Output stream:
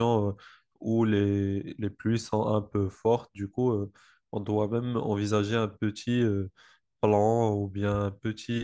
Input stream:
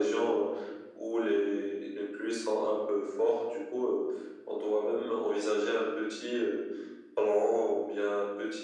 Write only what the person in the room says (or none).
none